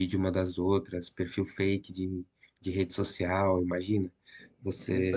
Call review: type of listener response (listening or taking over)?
taking over